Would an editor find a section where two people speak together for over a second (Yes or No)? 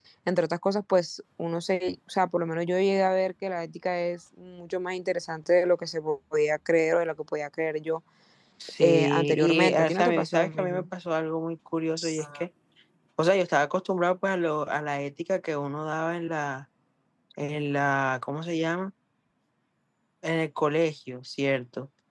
Yes